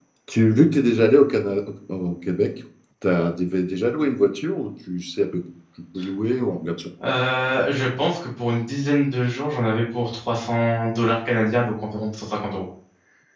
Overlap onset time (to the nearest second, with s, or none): none